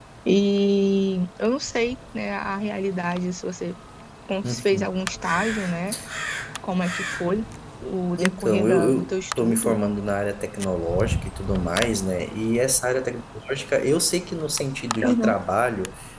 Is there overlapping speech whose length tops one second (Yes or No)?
Yes